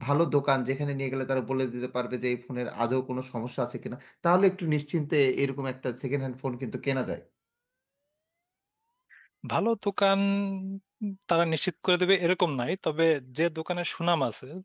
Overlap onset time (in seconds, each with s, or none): none